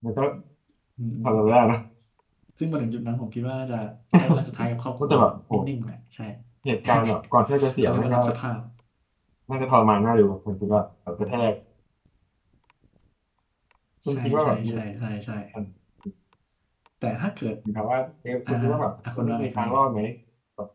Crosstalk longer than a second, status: present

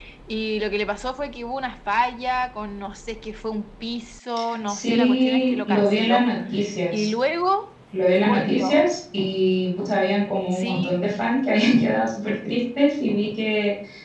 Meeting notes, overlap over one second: present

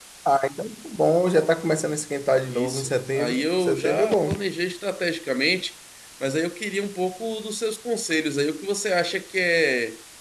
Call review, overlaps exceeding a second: present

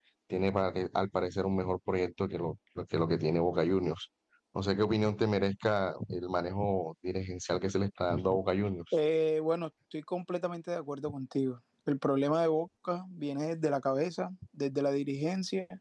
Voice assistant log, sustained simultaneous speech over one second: none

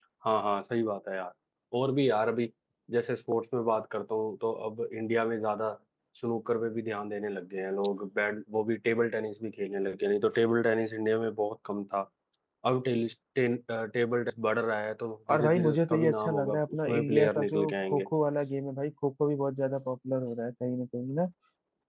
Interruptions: present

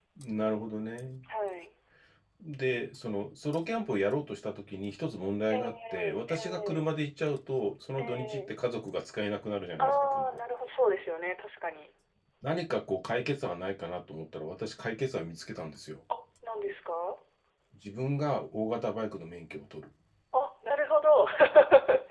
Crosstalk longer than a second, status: present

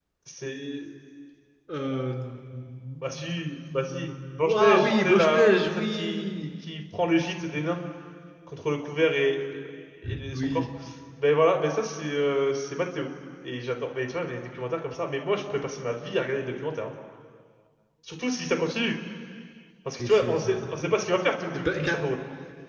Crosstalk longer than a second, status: present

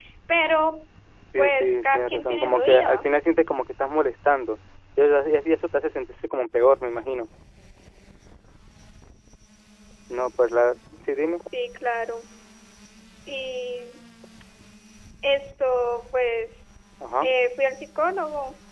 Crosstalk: present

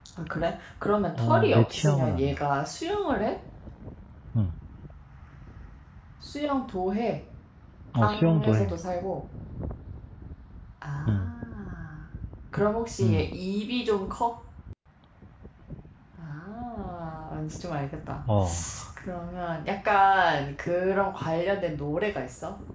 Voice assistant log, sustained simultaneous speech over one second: present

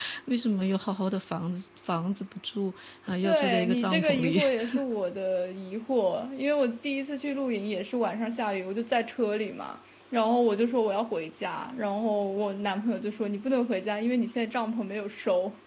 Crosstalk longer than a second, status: present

